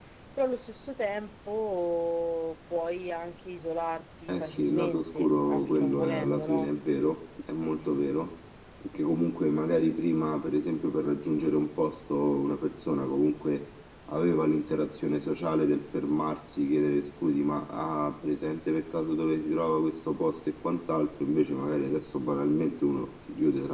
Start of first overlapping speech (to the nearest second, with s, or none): 4 s